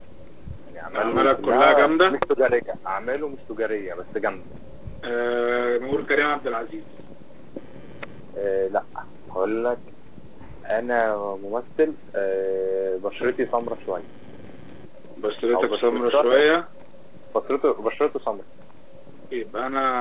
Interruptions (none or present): present